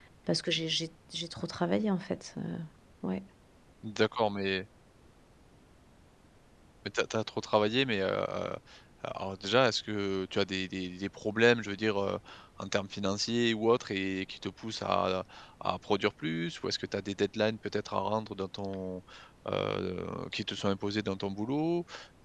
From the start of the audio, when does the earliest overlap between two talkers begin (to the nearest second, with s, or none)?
none